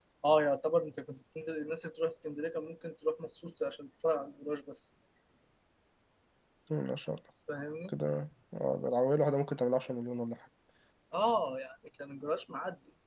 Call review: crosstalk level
none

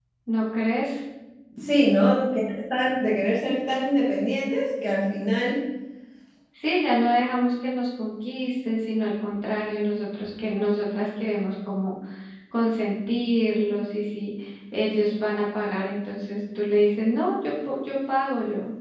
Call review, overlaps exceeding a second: none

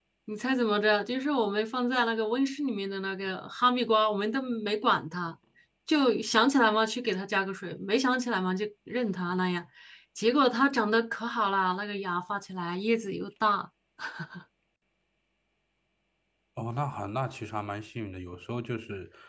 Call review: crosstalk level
none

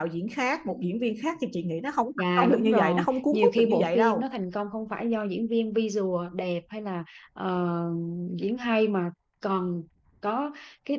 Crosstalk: present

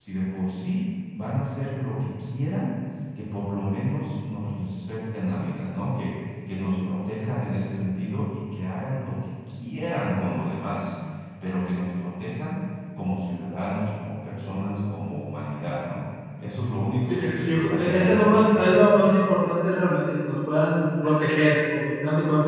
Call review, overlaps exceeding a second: present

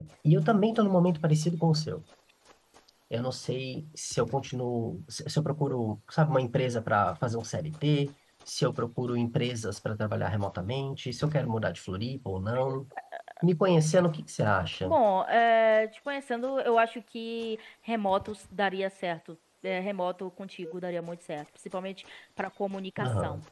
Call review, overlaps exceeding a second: none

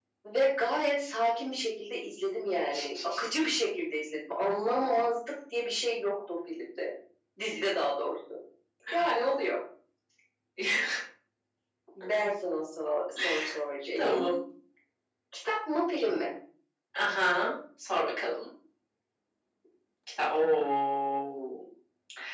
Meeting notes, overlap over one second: none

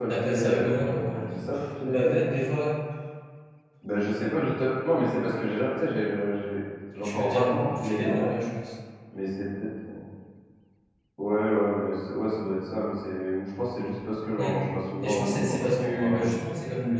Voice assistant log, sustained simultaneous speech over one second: present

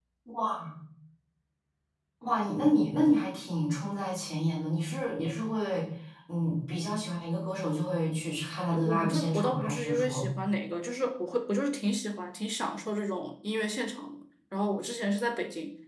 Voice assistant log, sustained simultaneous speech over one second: present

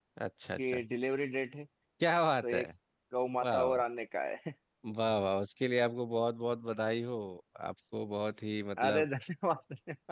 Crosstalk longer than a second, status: none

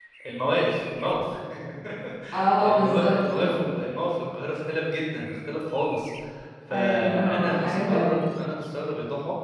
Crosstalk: present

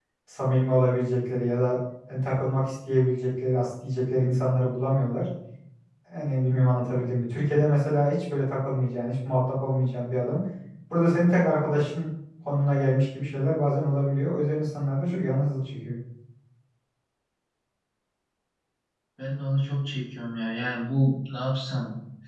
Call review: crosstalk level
none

